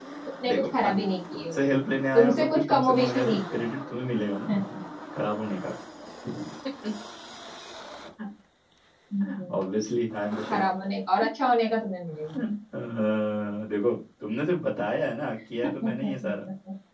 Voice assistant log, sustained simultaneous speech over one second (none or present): present